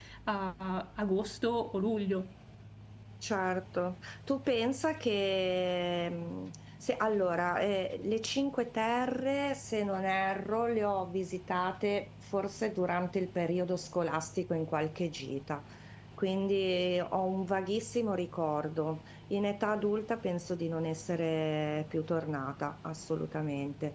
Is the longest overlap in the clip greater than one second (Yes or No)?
No